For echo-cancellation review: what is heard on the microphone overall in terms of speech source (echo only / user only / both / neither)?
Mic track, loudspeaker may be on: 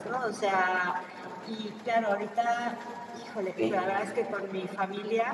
both